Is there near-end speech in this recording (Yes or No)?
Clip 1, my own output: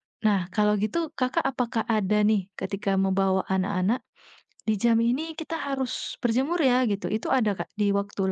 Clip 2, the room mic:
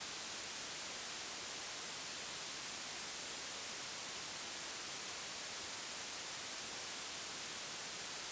No